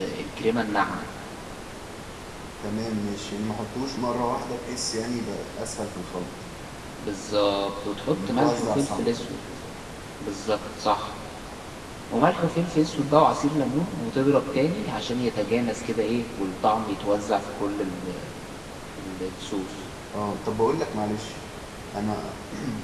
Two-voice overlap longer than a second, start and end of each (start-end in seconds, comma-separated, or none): 8.1-9.3